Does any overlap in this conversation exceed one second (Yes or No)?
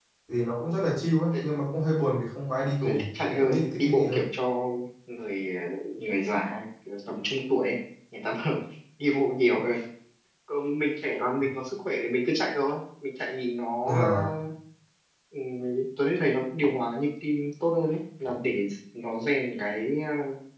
Yes